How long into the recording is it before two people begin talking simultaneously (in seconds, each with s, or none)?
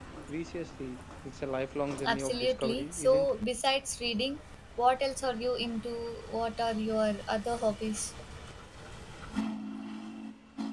2.0 s